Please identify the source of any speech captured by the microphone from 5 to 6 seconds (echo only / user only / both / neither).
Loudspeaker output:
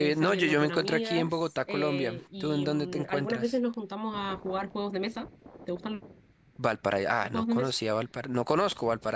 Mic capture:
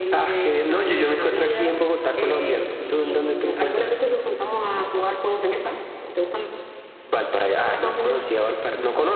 echo only